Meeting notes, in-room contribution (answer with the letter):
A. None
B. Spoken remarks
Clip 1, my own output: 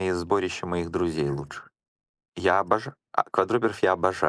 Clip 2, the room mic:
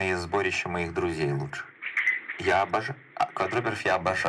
A